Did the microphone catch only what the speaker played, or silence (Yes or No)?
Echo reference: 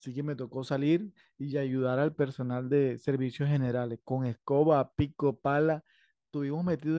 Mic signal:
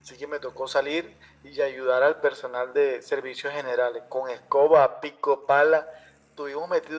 Yes